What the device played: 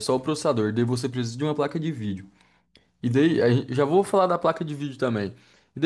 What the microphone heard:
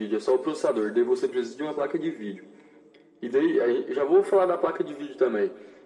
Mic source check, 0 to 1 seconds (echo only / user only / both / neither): echo only